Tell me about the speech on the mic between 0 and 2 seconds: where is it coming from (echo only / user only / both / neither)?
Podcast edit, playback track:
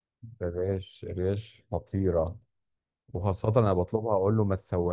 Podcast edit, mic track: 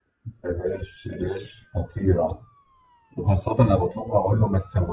echo only